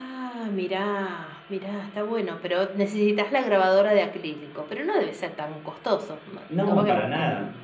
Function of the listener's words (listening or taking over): taking over